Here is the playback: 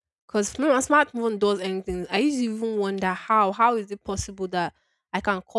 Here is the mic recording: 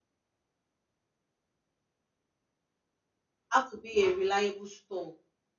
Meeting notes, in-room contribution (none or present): present